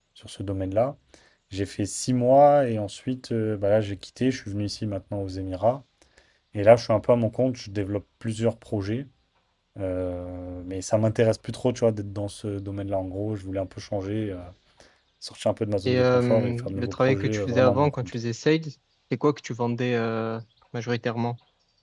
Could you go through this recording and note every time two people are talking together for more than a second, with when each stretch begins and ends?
15.9-18.1

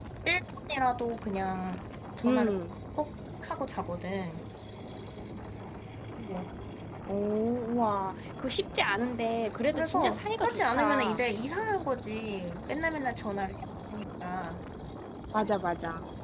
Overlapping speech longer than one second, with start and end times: 9.7-11.2

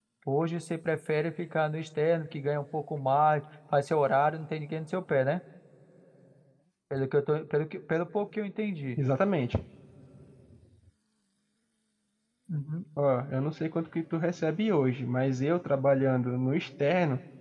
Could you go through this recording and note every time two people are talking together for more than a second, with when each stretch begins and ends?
none

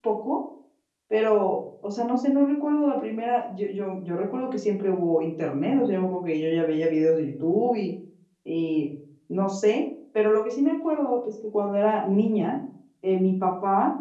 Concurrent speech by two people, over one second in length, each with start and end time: none

